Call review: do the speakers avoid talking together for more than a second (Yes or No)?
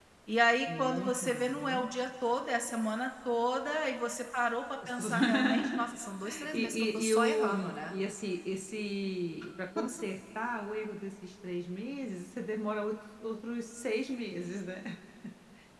No